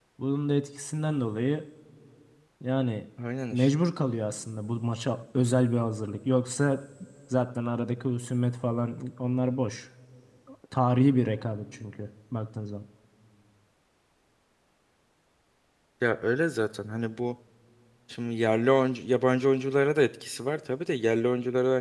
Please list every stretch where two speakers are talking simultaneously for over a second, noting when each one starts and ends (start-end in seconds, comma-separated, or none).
none